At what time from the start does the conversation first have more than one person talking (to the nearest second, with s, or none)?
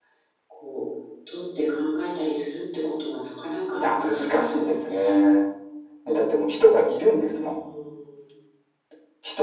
4 s